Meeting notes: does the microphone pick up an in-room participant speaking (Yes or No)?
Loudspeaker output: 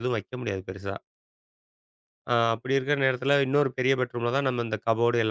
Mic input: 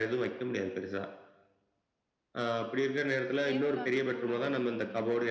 Yes